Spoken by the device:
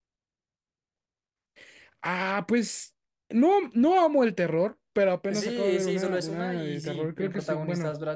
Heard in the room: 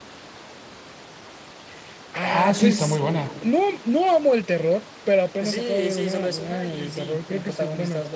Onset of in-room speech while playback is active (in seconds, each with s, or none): 2.2 s